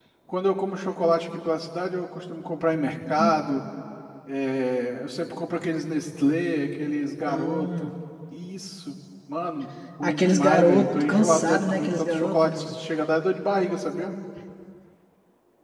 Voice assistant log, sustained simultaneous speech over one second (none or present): present